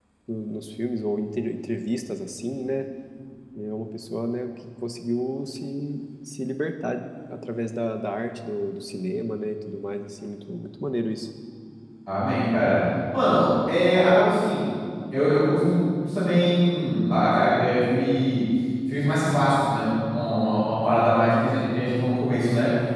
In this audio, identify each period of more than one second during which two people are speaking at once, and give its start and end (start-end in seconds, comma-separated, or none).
none